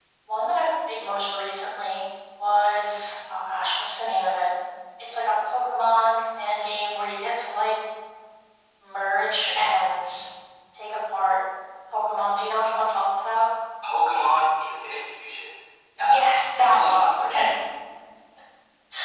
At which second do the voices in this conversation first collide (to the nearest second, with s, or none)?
16 s